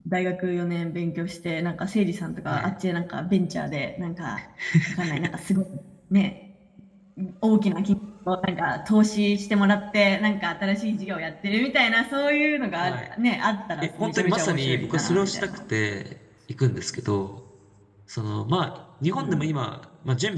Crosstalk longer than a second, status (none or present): present